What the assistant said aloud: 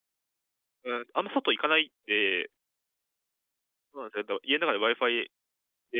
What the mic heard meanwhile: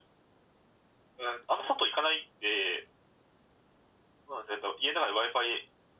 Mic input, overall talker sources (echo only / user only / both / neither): echo only